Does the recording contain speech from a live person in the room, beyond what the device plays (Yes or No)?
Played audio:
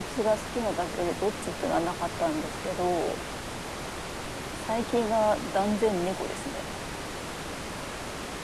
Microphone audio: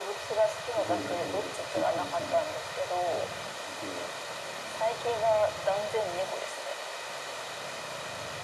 Yes